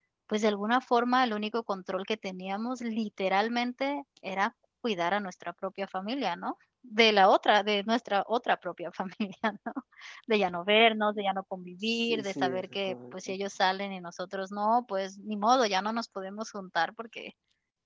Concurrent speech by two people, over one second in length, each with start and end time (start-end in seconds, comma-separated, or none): 11.8-13.3